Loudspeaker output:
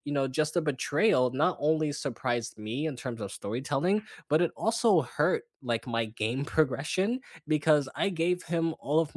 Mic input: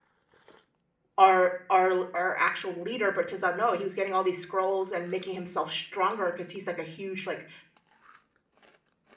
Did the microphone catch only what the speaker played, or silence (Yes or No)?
No